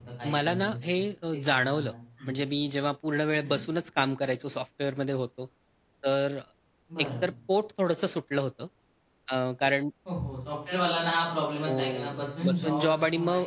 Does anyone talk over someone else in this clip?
Yes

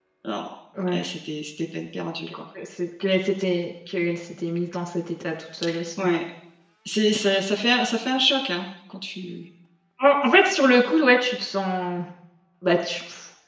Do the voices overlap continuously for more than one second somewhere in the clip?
No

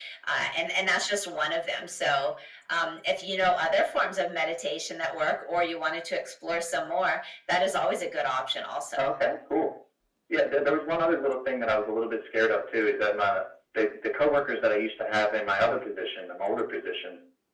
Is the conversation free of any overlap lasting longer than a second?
Yes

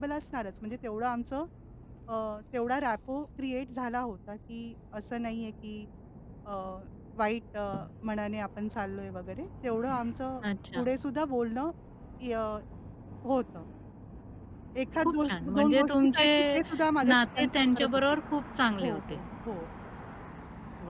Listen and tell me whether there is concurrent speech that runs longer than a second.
Yes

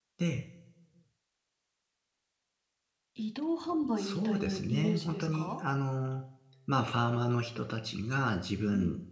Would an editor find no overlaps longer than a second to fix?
No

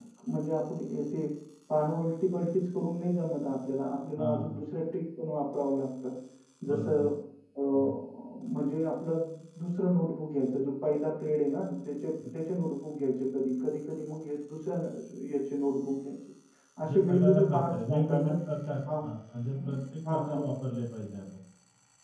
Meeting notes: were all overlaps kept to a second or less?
No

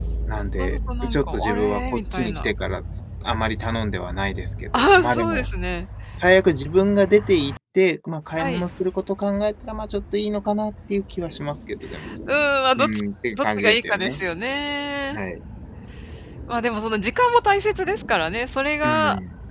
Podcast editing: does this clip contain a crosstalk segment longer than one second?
Yes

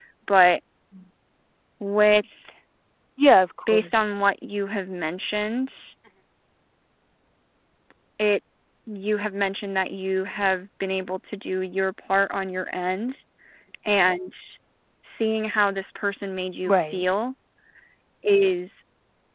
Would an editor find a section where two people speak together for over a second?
No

